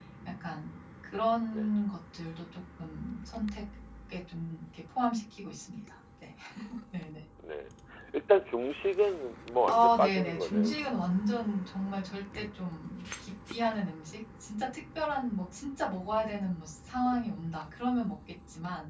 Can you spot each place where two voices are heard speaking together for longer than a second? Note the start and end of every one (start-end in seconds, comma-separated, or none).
9.7-10.9